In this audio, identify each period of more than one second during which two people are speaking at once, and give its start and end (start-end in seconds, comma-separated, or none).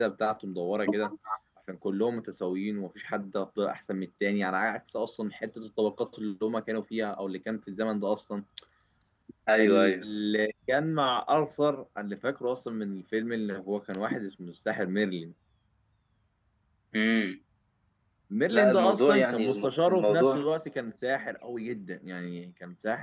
18.5-20.4